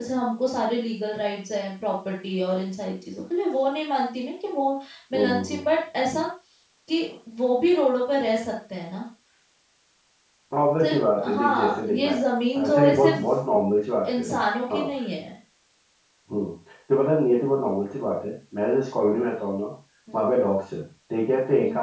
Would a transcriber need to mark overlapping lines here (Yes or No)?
Yes